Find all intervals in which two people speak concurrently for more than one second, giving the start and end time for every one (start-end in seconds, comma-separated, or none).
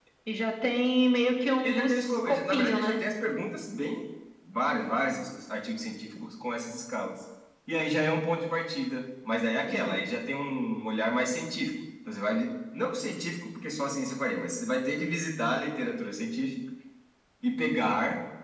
1.6-3.0